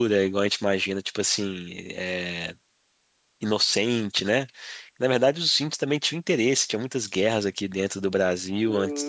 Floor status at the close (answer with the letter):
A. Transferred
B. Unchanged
A